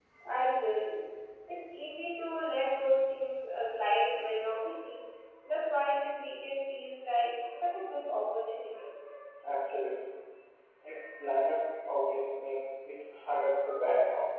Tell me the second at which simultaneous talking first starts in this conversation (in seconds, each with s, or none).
none